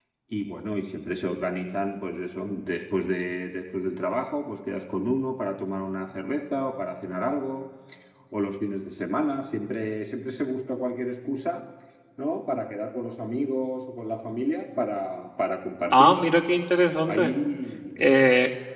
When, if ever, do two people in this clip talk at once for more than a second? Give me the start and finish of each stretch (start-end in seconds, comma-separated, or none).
none